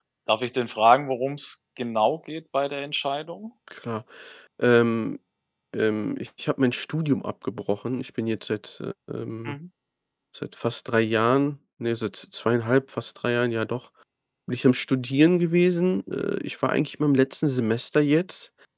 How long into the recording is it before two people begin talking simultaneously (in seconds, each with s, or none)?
none